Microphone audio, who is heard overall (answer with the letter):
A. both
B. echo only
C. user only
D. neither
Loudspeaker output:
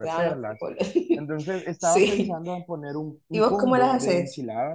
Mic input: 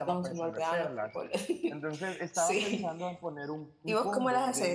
B